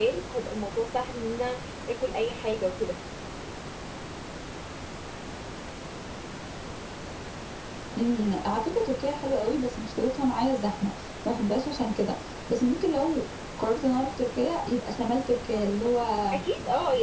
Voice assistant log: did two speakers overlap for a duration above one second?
No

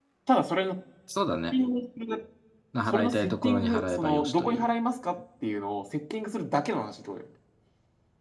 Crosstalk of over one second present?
Yes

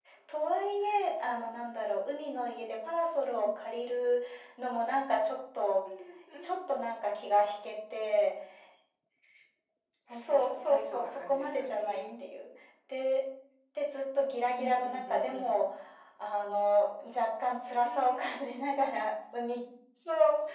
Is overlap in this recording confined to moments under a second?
No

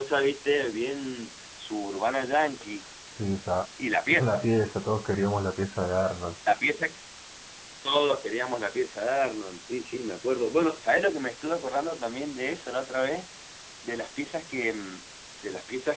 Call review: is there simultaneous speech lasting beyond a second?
No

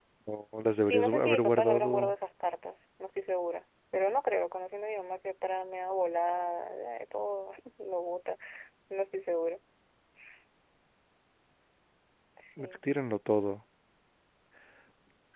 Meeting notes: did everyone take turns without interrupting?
No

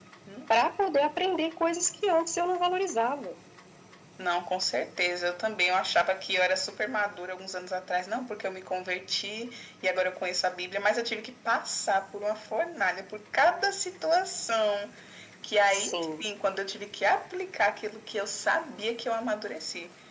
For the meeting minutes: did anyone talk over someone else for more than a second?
No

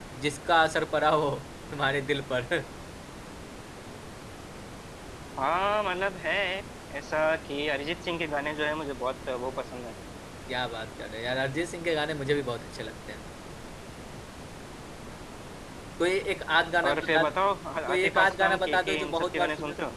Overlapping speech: Yes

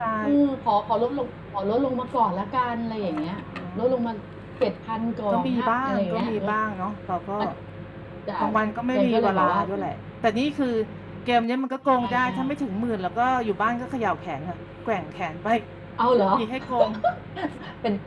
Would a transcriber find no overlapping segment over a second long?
No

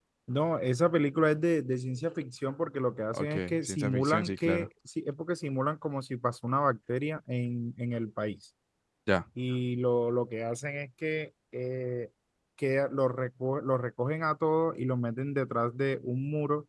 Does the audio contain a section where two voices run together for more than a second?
Yes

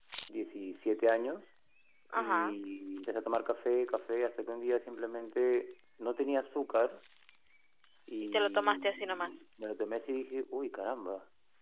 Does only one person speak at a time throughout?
No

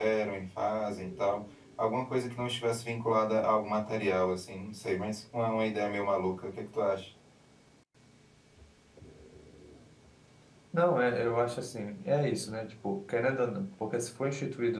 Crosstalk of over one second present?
No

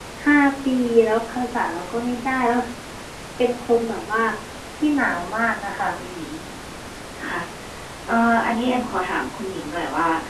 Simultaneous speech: No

